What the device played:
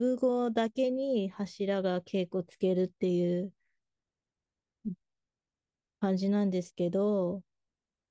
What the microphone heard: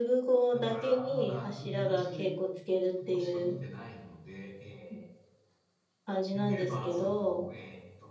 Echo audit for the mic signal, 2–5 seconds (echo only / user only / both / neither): both